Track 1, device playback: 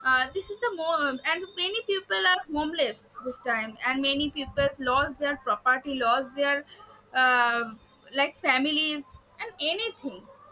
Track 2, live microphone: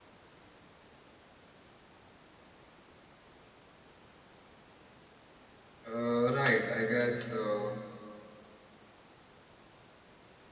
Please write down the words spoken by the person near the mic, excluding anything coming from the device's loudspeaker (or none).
uh, right. I guess uh,